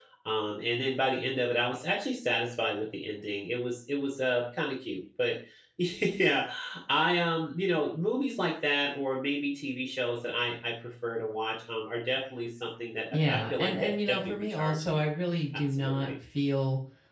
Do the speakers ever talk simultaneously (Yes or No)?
Yes